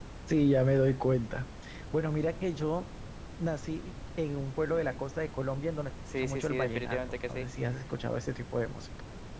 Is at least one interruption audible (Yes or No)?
Yes